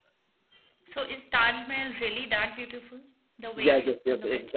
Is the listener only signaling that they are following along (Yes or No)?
No